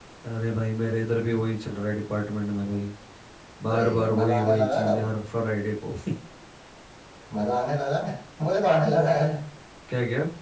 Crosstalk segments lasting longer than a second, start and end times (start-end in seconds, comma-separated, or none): 3.7-5.0